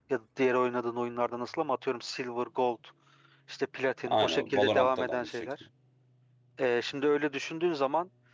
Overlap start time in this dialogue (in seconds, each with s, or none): 4.1 s